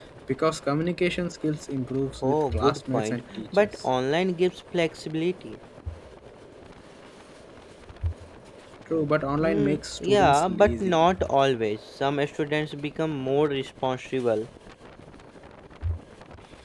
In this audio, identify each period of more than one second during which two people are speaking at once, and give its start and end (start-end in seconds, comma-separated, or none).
2.2-3.8, 9.4-11.1